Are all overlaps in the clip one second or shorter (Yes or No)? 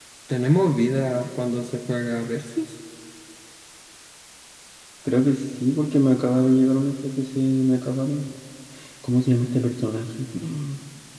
Yes